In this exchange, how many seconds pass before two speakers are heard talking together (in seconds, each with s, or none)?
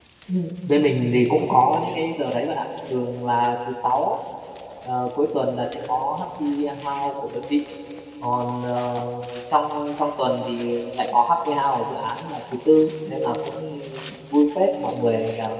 none